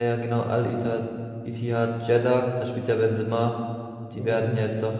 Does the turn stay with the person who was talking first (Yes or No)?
Yes